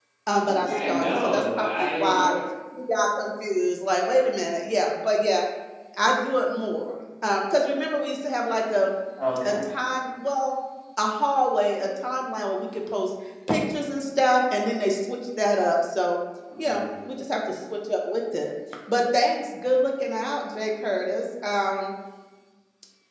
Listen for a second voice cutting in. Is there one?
Yes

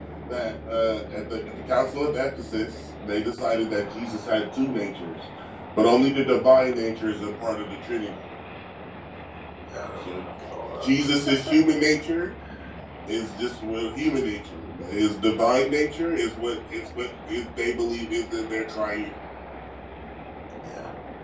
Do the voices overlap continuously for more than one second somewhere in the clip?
No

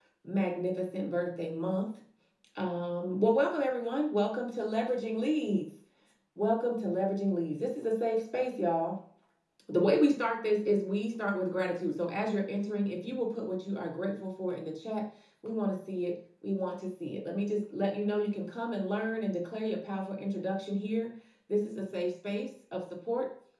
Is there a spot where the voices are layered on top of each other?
No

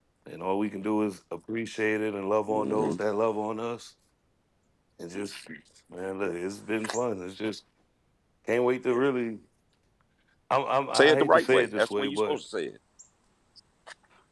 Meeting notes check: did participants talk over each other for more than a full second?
Yes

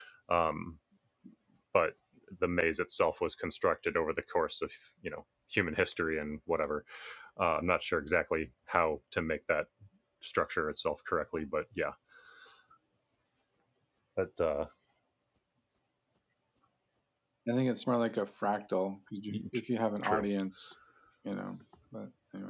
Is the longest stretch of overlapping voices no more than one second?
Yes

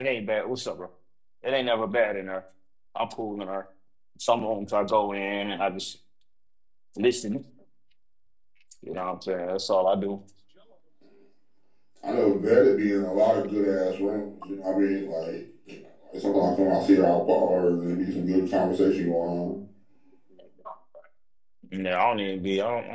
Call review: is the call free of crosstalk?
Yes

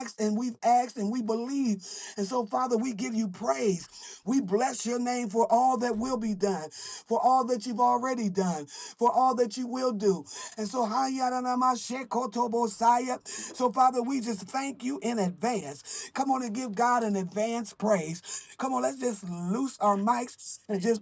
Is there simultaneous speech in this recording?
No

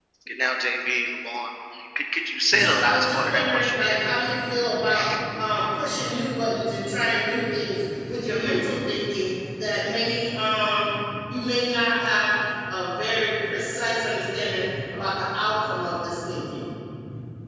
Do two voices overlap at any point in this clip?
Yes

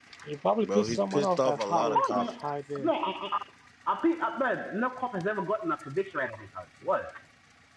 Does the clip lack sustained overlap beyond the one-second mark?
No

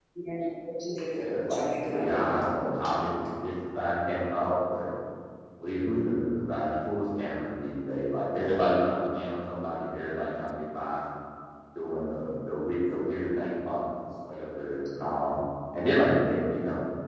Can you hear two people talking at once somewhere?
Yes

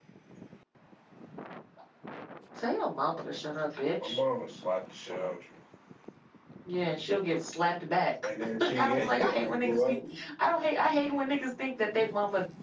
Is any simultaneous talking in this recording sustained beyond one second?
Yes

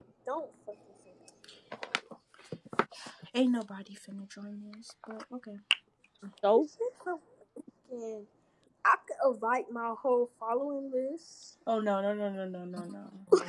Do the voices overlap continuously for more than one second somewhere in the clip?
No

